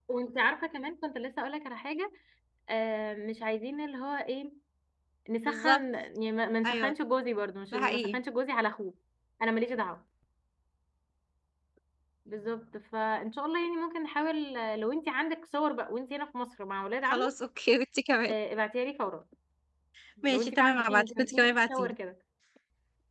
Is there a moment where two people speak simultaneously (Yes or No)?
Yes